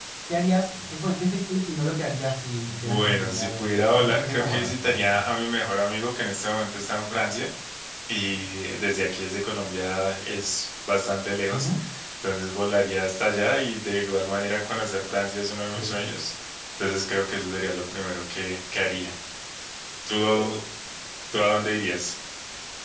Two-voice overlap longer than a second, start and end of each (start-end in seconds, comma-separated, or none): 2.6-5.2